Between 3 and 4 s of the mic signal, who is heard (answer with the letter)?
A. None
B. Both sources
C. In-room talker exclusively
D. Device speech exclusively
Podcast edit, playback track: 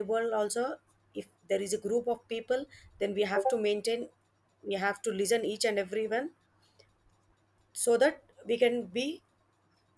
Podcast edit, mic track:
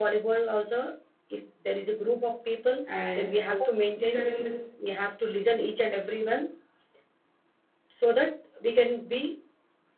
B